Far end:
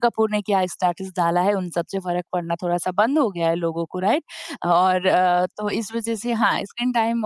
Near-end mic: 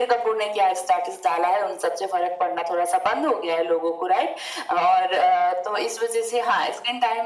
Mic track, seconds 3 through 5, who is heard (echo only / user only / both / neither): echo only